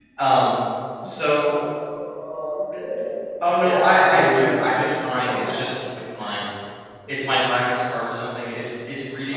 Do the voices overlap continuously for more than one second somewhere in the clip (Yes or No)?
Yes